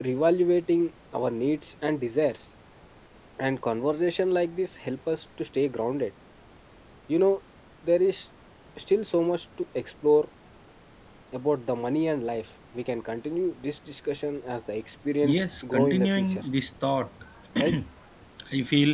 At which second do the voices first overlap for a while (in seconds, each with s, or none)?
15.2 s